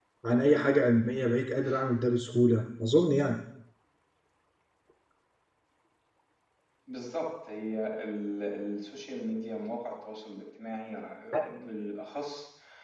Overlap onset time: none

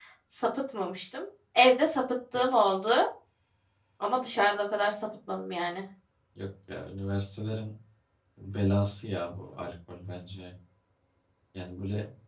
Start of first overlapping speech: none

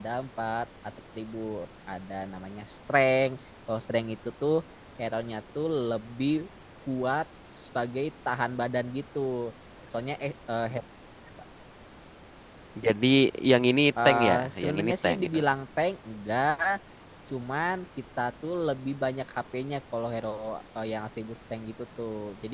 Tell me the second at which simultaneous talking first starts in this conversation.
14 s

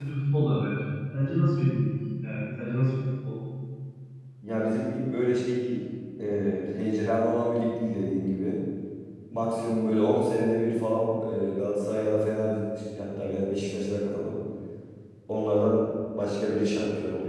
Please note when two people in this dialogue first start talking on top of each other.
none

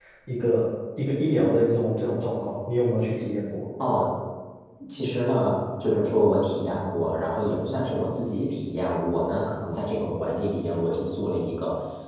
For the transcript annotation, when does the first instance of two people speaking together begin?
none

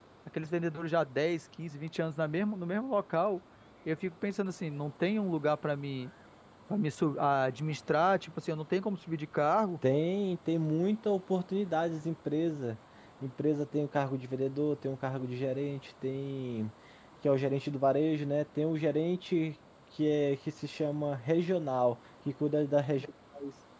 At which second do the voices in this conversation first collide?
none

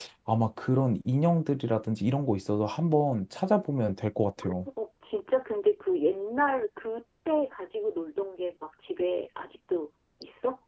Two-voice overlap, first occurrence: none

